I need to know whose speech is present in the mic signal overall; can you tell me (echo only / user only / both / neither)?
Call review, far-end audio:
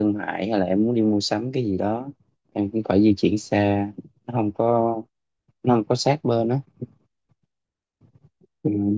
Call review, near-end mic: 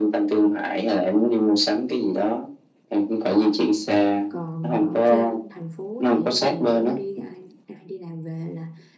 both